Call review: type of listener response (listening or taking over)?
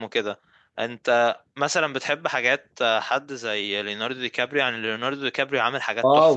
taking over